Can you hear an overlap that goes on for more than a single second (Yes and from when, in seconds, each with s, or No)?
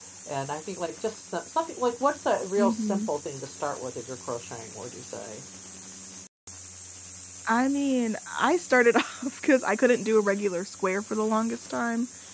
No